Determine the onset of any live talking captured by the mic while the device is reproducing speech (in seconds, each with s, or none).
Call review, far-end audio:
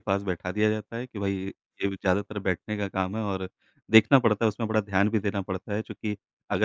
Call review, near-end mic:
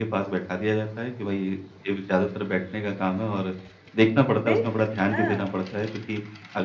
4.5 s